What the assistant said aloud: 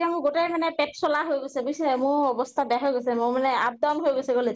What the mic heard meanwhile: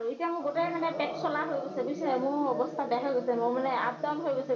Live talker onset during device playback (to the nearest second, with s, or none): 0 s